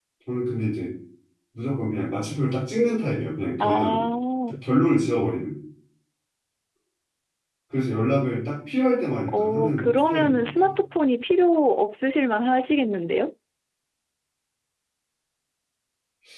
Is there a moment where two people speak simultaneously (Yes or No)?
Yes